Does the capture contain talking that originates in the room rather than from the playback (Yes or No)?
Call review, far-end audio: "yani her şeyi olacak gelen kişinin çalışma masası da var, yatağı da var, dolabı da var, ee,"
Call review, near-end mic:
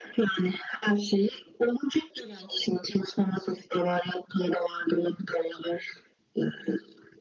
No